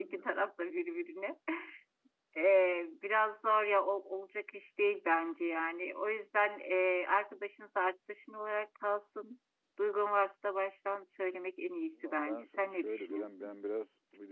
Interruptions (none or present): present